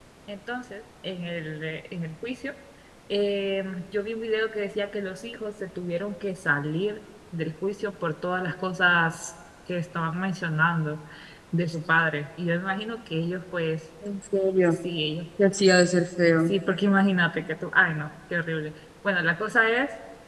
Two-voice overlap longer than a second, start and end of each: none

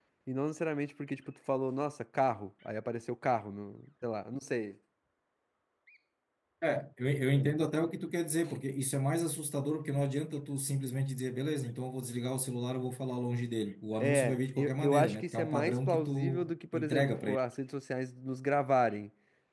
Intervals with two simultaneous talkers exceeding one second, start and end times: 14.0-17.4

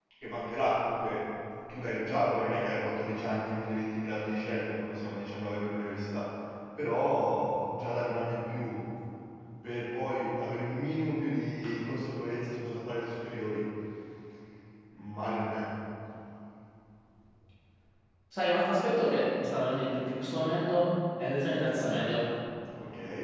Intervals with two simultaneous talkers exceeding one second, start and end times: none

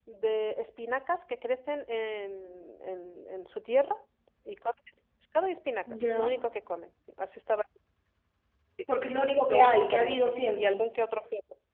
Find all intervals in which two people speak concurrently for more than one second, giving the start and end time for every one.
9.5-10.8

